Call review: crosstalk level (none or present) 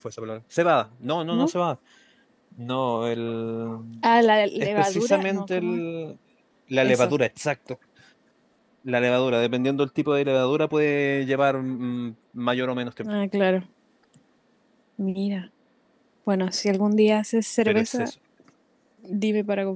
present